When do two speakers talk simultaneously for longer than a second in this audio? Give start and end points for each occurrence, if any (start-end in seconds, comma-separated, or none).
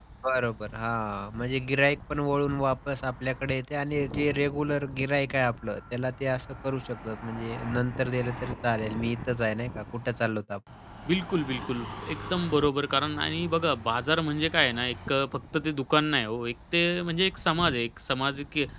none